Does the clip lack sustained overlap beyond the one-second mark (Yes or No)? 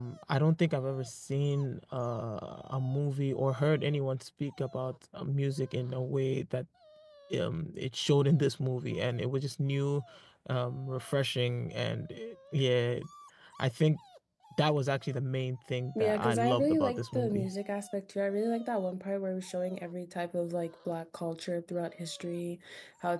No